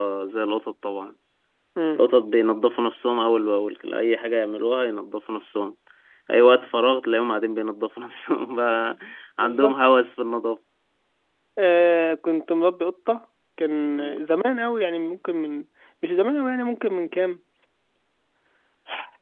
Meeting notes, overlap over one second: none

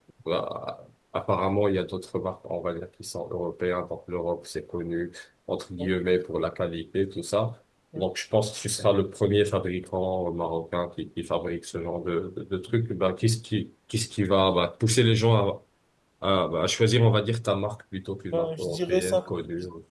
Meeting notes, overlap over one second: present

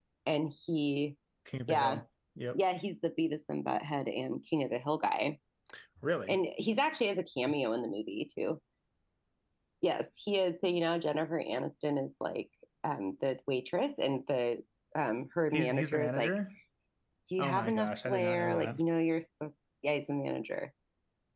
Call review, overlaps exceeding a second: present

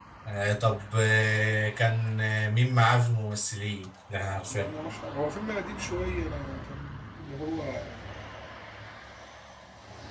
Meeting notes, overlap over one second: none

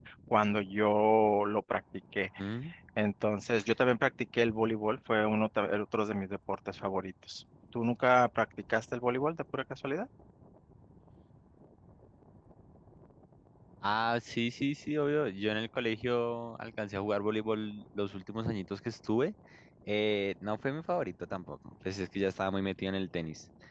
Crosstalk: none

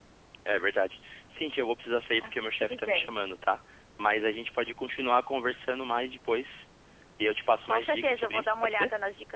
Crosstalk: present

